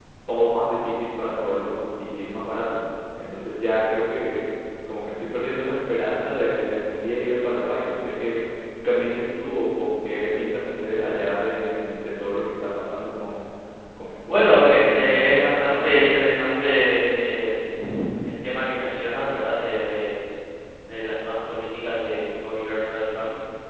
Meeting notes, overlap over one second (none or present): present